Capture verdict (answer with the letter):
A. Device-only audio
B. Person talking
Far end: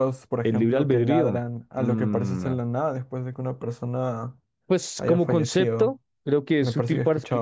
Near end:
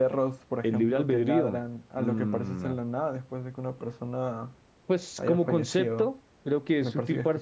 A